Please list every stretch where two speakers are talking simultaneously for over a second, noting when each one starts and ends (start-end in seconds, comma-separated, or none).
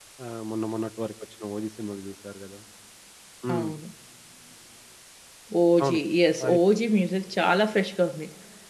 none